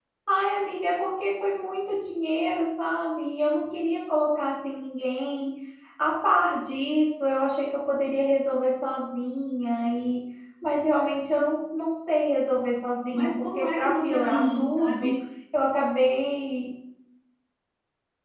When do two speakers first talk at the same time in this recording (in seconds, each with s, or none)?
13.1 s